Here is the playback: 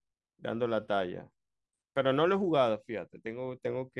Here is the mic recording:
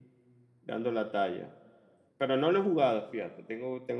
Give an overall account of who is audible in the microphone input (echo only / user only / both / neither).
echo only